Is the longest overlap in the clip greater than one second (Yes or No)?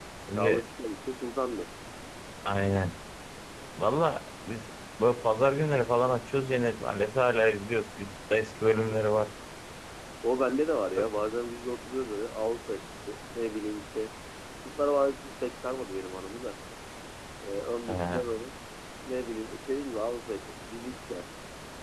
No